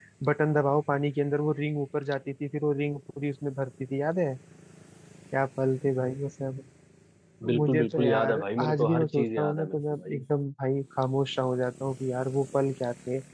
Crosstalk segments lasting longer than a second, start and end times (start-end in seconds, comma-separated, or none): 7.5-10.2